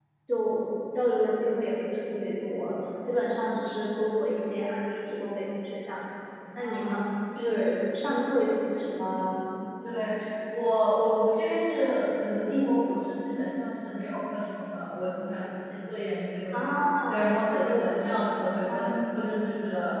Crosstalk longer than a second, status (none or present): none